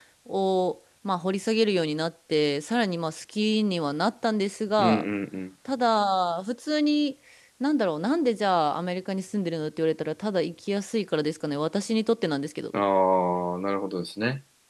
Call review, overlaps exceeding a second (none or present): none